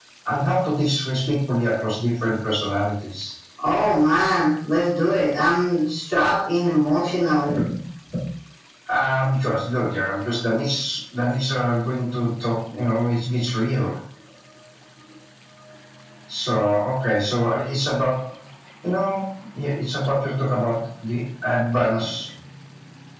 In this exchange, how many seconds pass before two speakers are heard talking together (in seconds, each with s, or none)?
none